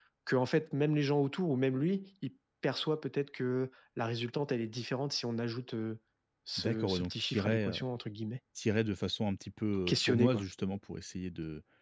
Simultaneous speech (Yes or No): Yes